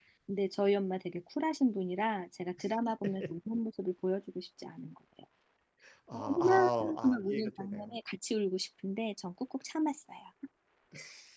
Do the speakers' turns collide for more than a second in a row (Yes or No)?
Yes